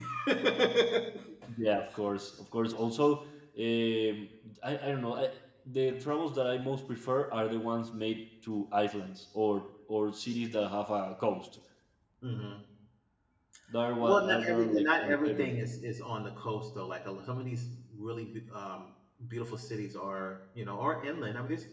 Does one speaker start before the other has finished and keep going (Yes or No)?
Yes